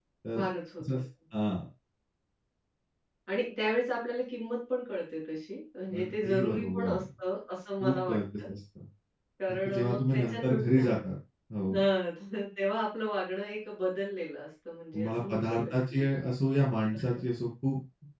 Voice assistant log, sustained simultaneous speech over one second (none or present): present